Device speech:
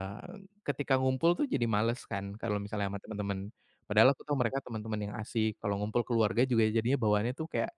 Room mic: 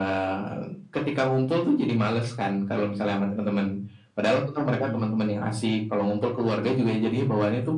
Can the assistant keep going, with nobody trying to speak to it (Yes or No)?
No